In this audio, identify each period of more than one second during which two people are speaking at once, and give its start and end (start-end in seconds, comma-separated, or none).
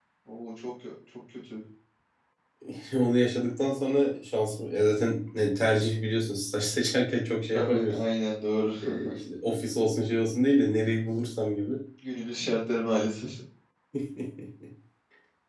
none